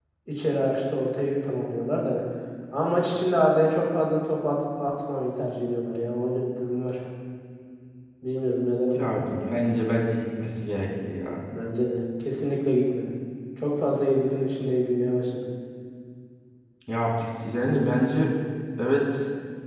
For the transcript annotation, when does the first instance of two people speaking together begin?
none

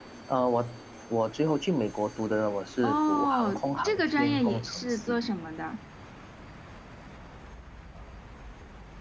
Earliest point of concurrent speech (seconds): 3 s

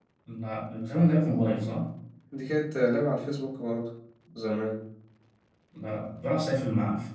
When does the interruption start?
none

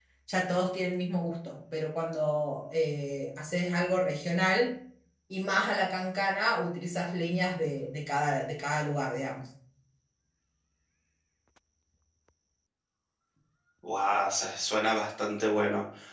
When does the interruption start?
none

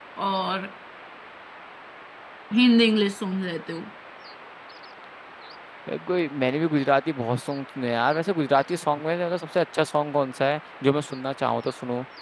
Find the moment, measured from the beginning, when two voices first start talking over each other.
none

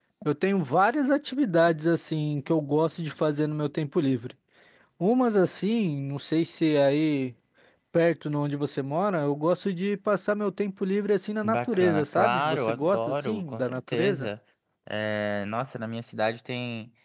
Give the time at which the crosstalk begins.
11 s

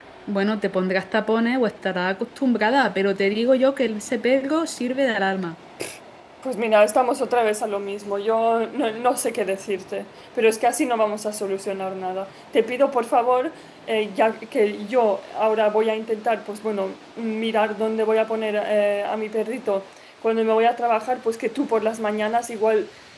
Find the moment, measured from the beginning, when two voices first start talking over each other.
none

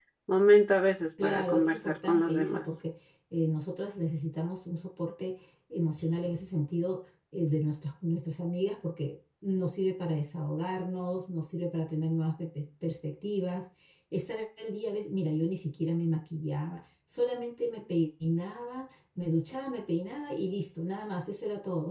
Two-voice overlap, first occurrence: 1 s

